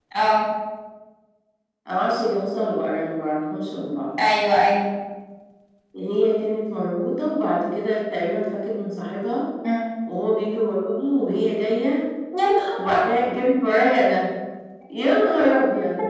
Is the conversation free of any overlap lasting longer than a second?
Yes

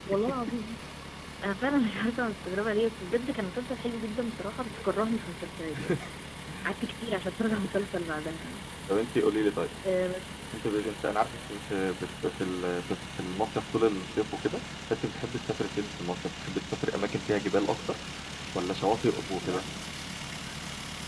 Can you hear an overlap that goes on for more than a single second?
No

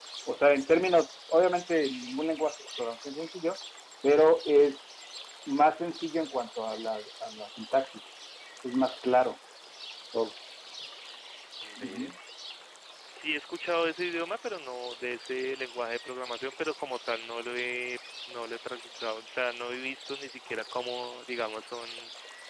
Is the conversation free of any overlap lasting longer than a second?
Yes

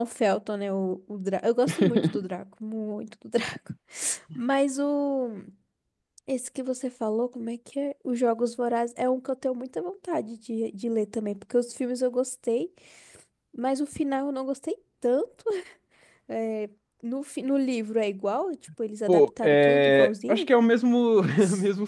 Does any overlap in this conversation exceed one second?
Yes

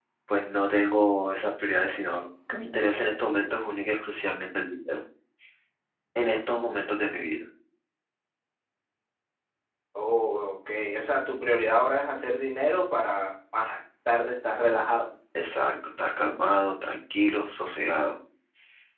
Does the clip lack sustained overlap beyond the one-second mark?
Yes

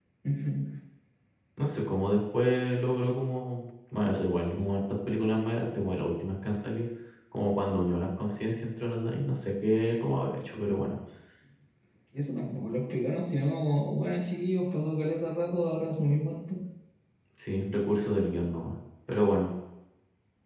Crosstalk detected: No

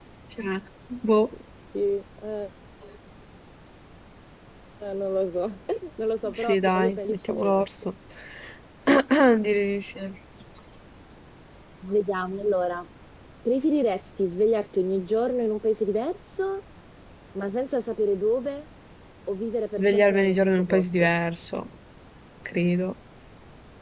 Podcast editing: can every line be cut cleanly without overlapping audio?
No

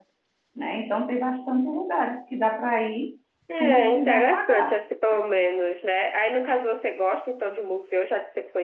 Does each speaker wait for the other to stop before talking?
No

